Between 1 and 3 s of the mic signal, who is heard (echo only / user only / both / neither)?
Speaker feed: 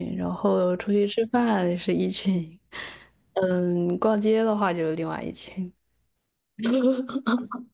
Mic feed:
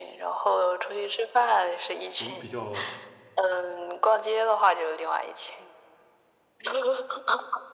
both